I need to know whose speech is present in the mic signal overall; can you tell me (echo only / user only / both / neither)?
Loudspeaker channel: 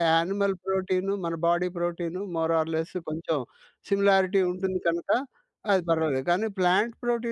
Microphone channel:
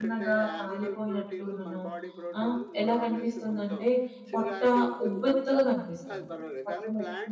both